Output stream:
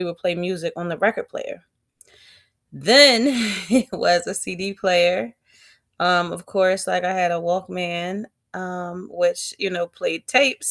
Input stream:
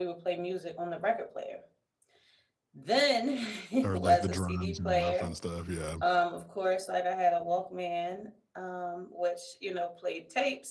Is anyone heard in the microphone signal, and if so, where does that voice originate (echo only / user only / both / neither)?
both